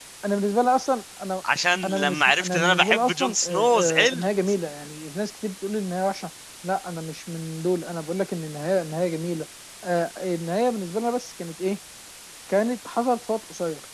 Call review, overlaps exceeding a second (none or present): present